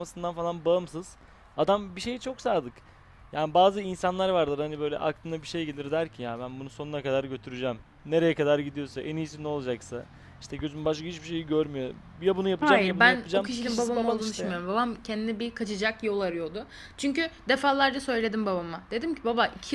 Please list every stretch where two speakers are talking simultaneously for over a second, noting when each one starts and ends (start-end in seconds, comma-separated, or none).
12.6-14.6